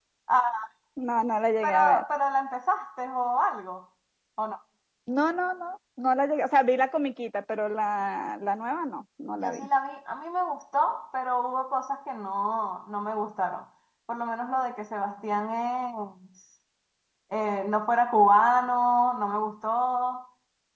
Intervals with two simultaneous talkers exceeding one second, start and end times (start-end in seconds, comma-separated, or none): none